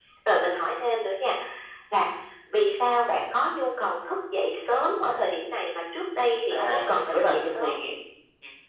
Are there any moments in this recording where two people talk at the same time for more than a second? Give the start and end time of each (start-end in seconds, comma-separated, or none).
6.5-7.8